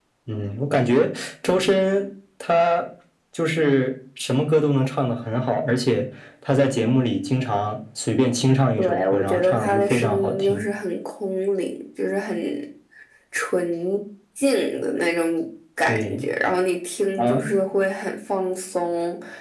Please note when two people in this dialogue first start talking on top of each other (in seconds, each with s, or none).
8.8 s